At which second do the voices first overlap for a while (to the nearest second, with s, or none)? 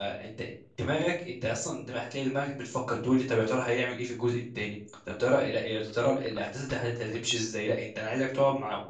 none